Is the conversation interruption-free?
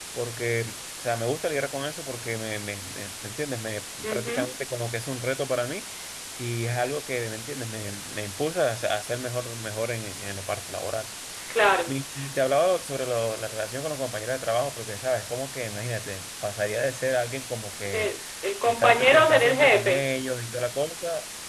No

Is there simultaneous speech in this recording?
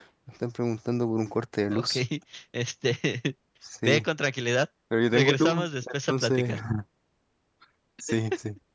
Yes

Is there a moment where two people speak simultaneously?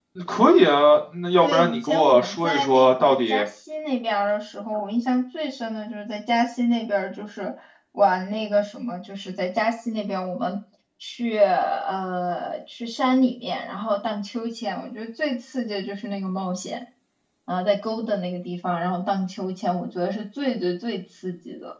Yes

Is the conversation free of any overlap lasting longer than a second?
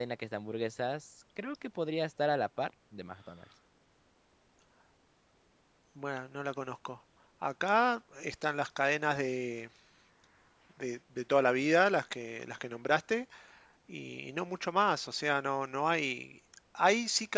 Yes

